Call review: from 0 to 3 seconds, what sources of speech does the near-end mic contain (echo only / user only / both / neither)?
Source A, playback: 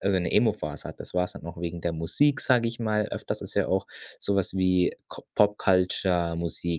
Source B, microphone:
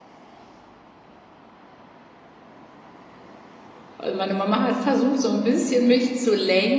neither